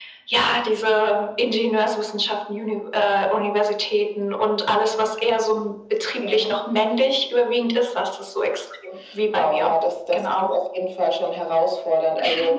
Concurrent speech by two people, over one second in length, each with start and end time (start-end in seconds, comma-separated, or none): none